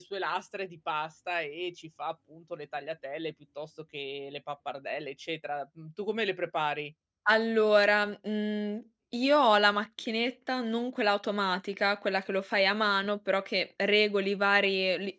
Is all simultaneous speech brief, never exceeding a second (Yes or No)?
Yes